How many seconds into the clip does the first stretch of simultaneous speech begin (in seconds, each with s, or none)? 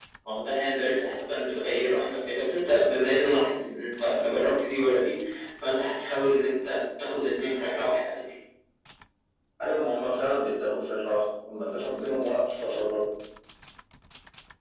none